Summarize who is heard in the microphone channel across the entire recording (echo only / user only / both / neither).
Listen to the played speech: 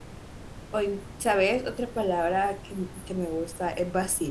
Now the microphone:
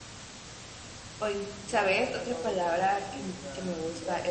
both